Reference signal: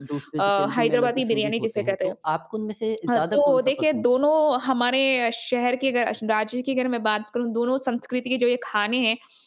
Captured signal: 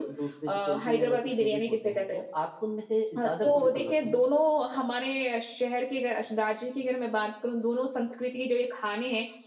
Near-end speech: present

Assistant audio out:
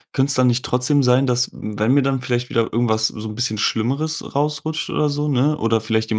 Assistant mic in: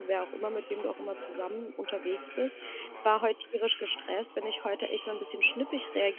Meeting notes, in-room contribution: present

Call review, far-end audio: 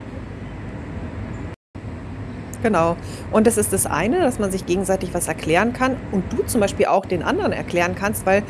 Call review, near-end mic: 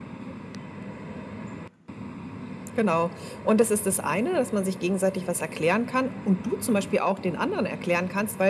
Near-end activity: none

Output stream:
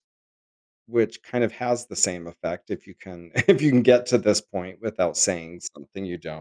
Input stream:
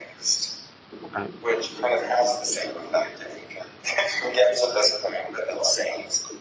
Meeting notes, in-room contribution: present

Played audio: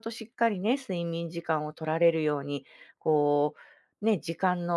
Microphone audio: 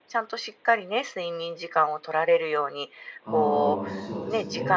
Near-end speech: present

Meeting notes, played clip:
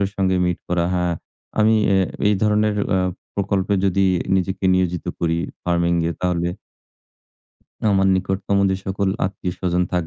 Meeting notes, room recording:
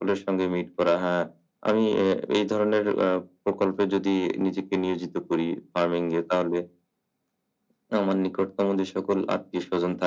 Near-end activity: none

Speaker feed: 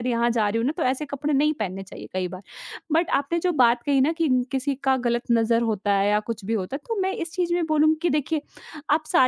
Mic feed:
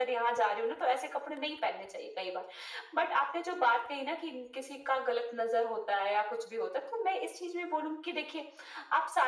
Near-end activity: none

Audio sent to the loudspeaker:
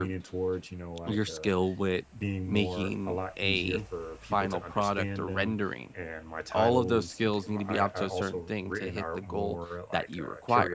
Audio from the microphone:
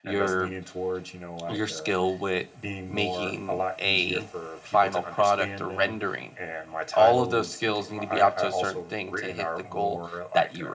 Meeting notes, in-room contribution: none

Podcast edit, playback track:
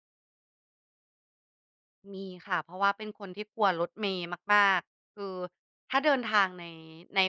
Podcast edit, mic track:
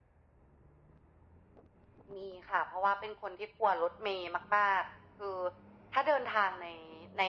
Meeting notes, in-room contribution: none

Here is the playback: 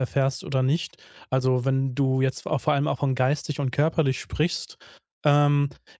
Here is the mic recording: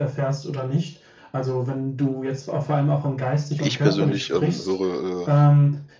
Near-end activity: present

